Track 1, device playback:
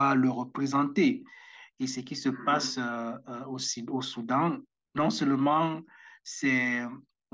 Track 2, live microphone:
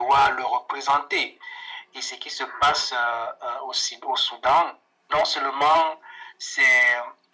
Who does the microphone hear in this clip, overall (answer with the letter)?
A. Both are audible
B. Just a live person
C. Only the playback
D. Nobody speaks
C